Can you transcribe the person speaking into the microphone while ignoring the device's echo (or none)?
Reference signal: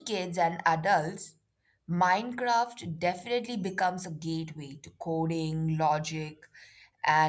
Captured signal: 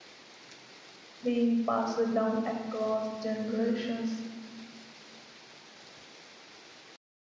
being passed down across generations